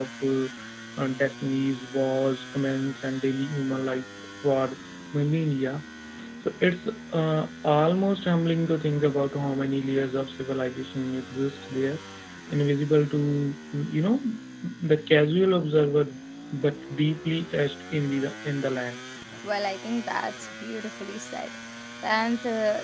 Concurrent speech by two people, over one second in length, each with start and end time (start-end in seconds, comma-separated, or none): none